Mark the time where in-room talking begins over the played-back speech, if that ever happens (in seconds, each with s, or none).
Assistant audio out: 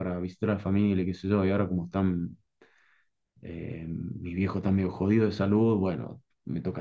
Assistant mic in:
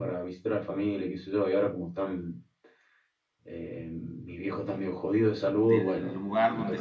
5.6 s